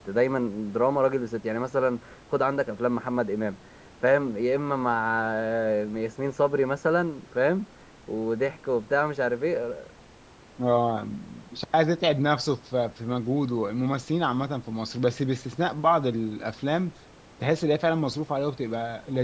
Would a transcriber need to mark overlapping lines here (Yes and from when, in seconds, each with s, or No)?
No